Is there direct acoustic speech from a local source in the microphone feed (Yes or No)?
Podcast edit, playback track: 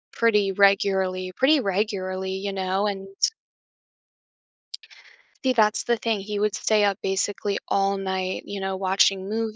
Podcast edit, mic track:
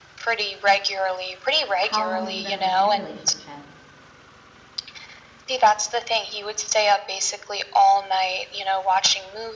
Yes